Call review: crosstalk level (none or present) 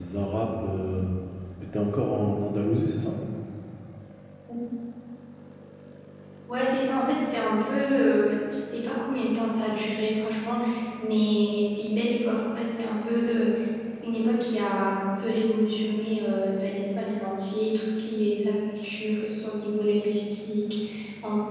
none